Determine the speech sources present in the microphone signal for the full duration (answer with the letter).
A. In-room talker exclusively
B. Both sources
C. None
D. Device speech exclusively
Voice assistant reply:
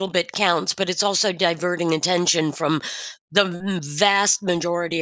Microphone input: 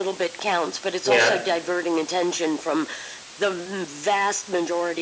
B